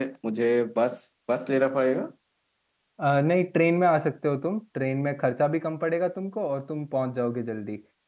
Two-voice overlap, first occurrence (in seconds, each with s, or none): none